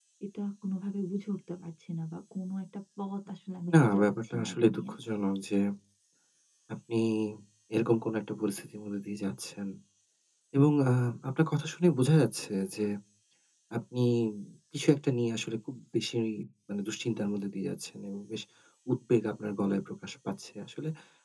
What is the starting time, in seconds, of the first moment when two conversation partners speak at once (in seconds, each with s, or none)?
3.7 s